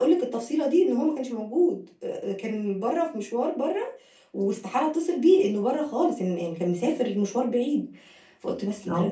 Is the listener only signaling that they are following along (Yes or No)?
Yes